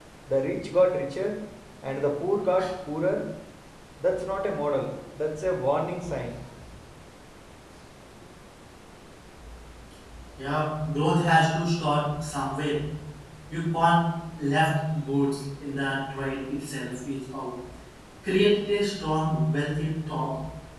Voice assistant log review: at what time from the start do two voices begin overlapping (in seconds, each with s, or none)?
none